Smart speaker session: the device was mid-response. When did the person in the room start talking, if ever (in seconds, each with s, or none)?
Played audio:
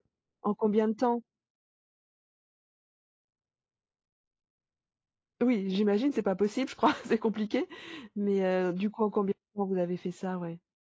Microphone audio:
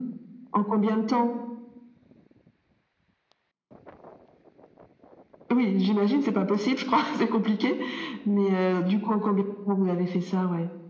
none